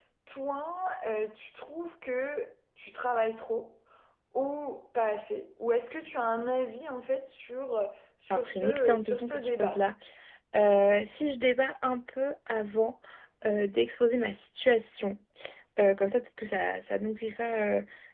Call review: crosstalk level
present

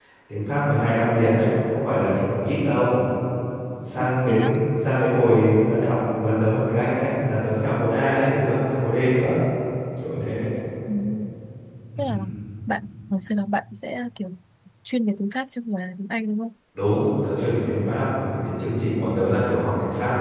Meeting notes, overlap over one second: none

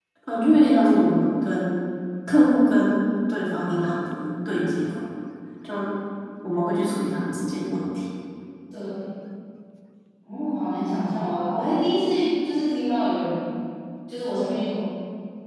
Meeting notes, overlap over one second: none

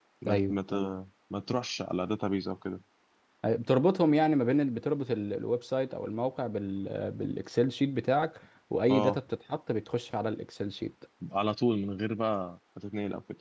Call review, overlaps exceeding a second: none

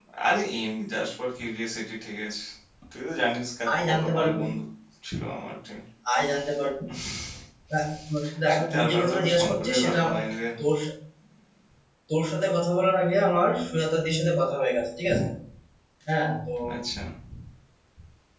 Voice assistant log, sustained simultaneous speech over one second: present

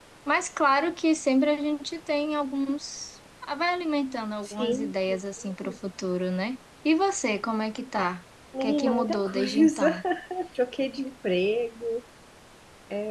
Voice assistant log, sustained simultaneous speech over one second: present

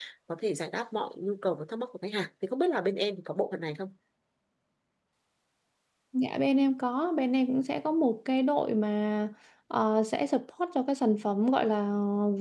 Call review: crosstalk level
none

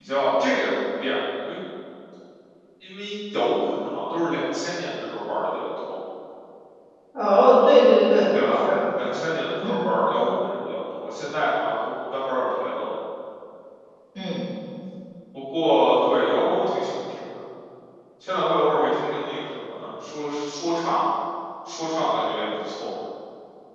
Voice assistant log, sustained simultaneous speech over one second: none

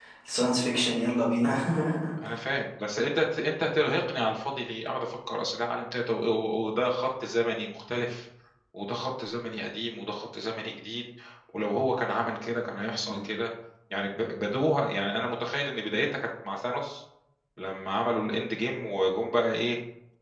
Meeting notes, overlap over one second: none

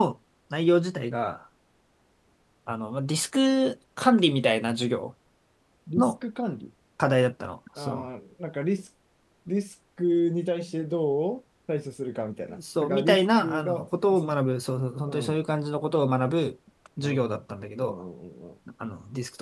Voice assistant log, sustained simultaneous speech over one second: present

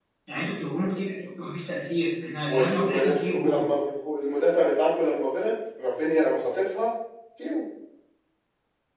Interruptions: present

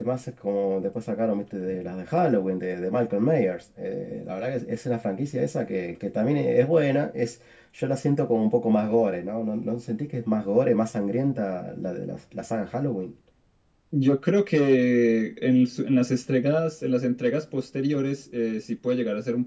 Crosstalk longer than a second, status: none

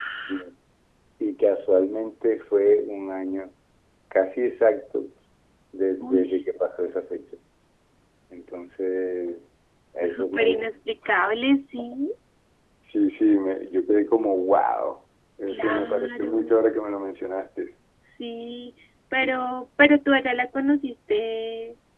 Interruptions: present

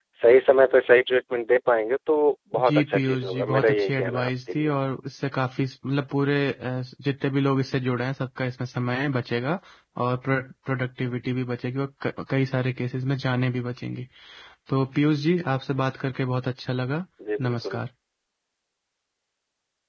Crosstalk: present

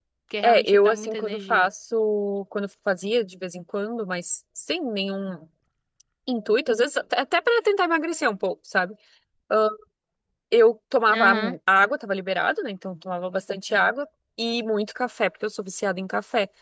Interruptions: present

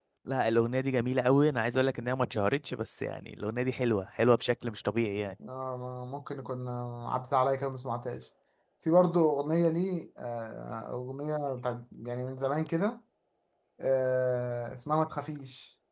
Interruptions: none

